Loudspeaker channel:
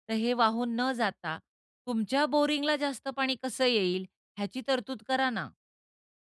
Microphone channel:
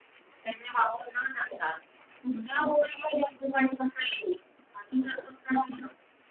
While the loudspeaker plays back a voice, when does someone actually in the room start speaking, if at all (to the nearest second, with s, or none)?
none